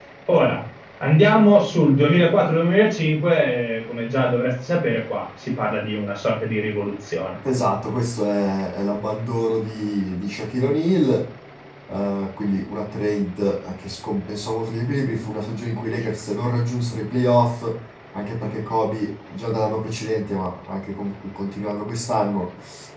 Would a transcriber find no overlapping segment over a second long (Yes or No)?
Yes